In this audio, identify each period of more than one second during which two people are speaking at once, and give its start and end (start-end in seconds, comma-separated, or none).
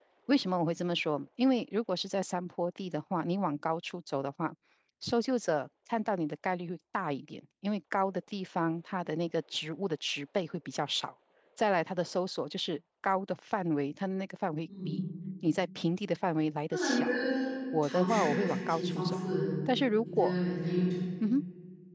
17.8-19.2